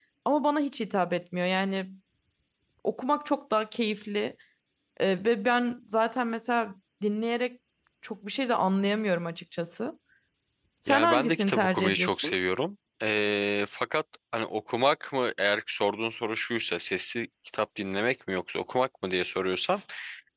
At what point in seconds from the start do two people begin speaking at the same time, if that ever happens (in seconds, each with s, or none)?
10.9 s